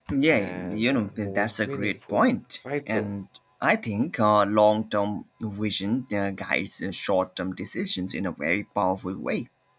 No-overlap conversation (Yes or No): No